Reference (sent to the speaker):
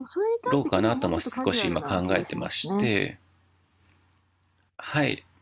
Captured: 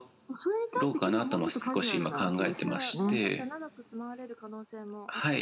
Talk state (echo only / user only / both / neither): both